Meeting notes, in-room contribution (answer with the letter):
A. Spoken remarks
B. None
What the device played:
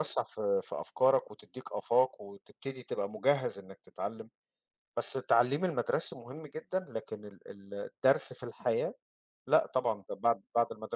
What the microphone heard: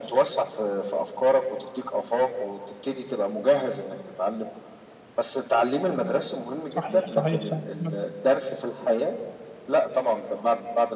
A